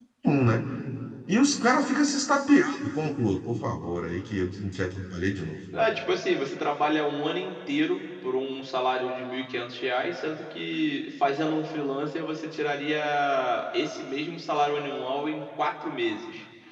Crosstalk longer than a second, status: none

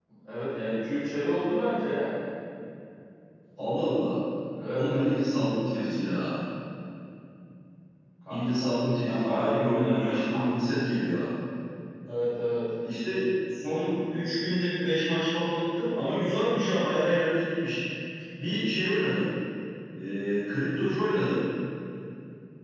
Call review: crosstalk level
present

